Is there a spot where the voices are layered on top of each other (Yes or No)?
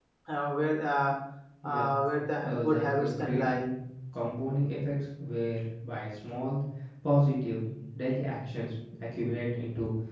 Yes